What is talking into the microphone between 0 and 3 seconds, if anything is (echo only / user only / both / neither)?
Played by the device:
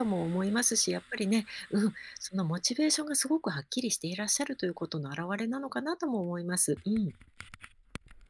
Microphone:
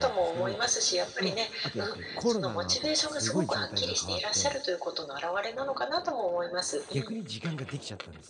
both